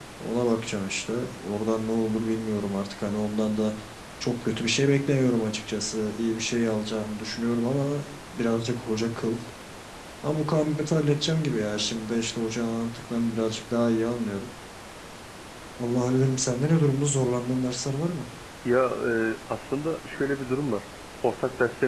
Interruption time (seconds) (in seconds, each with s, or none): none